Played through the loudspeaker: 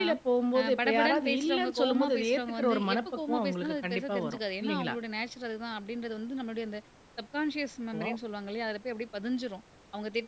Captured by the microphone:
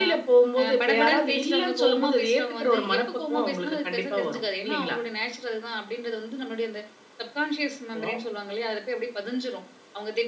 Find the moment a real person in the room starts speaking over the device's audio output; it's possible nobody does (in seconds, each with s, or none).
none